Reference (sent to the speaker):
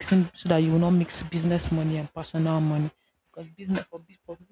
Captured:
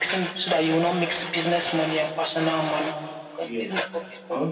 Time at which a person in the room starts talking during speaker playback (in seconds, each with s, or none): 3.4 s